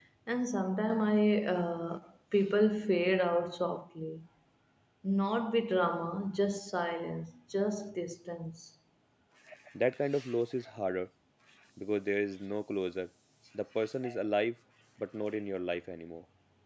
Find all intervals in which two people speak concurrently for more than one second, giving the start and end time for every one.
none

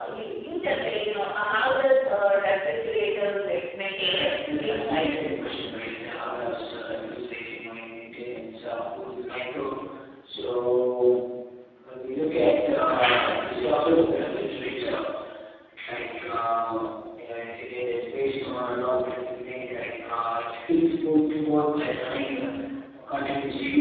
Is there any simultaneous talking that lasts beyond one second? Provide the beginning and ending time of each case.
4.0-5.3

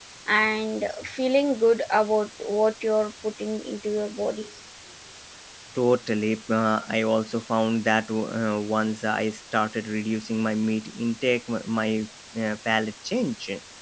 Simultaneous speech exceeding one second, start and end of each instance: none

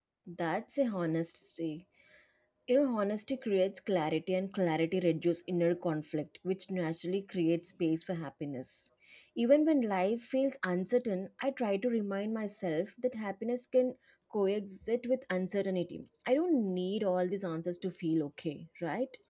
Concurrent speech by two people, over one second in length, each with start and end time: none

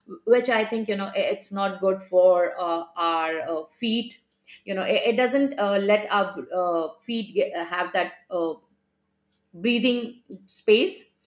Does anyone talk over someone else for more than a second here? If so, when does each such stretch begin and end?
none

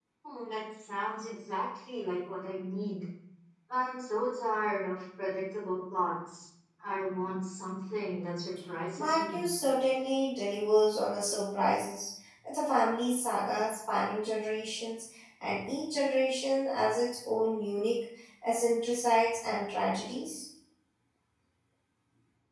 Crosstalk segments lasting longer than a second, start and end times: none

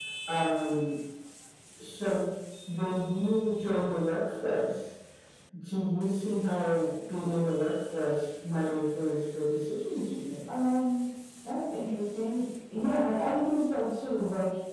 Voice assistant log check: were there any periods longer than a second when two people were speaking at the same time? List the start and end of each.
none

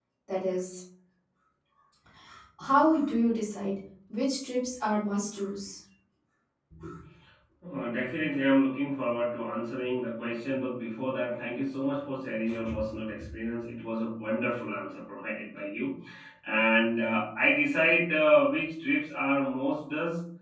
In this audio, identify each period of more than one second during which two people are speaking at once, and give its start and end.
none

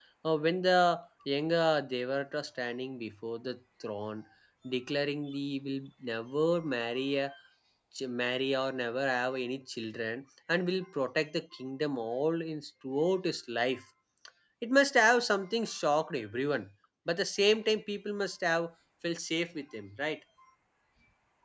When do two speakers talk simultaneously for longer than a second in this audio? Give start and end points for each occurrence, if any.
none

